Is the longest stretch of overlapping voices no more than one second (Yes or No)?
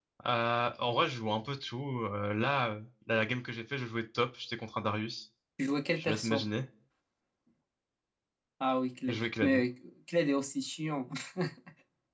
Yes